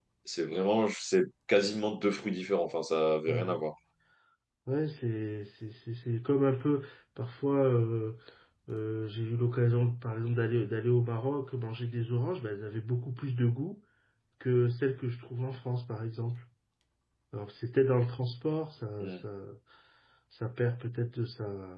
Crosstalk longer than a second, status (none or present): none